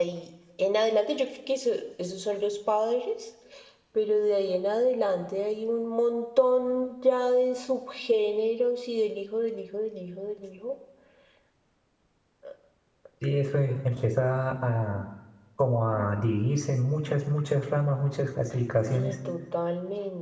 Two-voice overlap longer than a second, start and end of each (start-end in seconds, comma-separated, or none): none